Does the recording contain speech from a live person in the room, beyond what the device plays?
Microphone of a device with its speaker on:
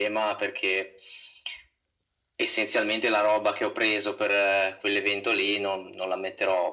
No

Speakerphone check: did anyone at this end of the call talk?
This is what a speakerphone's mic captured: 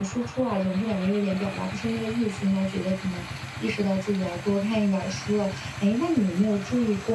Yes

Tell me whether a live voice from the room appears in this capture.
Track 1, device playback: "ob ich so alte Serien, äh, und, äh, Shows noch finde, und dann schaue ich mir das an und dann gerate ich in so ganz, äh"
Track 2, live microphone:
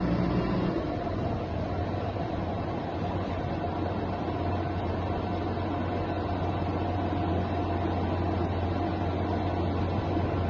No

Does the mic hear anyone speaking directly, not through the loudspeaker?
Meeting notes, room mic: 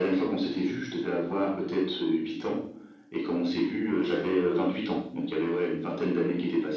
No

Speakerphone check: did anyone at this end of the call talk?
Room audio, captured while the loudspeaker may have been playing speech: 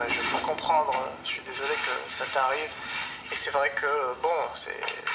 No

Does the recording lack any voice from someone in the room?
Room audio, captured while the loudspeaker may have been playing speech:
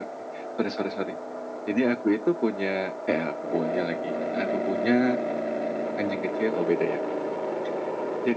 Yes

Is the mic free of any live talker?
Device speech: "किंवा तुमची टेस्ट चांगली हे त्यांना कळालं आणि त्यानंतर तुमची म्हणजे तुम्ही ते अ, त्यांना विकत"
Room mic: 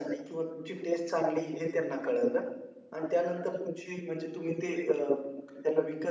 Yes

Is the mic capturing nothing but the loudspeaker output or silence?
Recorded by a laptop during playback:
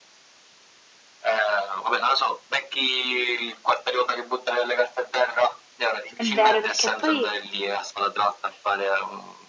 No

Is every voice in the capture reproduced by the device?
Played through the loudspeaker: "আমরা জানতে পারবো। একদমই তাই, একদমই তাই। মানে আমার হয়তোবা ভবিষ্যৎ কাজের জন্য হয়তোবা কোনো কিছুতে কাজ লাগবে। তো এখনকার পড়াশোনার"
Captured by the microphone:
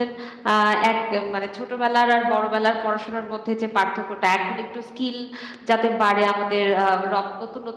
No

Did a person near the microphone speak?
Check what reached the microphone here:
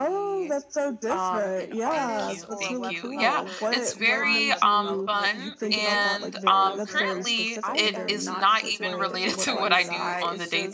Yes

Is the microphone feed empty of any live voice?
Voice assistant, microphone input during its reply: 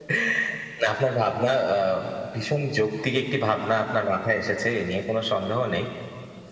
Yes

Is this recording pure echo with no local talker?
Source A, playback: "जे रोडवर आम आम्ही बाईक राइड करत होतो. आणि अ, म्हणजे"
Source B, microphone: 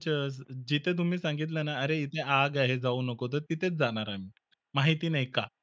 No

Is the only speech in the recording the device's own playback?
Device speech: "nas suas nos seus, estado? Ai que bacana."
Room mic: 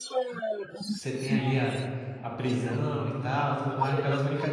No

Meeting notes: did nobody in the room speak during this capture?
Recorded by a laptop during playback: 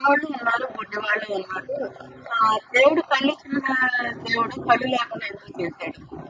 Yes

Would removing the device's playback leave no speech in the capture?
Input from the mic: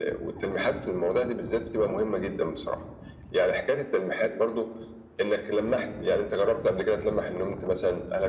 Yes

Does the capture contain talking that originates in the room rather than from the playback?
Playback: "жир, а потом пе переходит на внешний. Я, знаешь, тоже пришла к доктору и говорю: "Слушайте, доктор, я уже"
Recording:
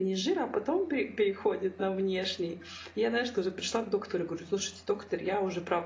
No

